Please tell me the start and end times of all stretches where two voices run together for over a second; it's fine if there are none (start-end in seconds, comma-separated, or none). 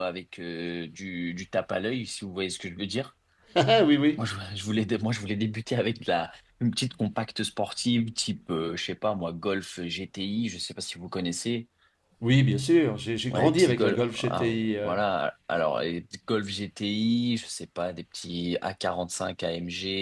13.3-14.9